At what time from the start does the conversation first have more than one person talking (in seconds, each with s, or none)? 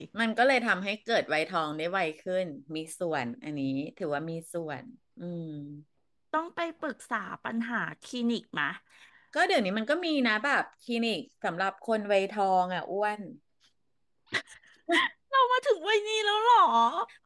none